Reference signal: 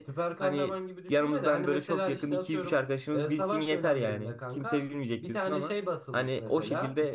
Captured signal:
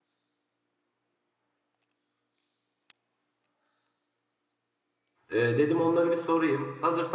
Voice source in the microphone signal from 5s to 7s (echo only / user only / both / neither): user only